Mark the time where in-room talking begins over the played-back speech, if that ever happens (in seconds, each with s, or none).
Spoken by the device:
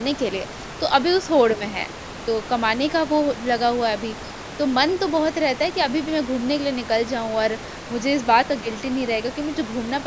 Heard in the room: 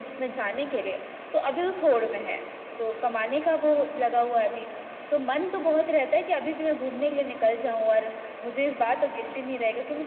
none